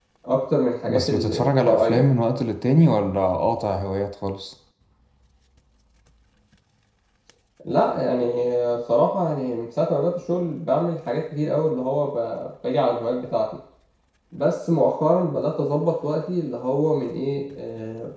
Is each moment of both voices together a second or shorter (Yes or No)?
No